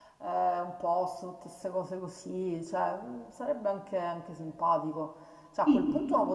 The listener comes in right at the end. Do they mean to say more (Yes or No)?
No